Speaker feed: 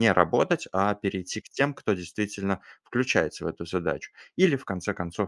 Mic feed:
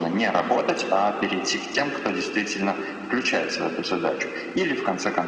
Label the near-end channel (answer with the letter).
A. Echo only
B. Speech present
A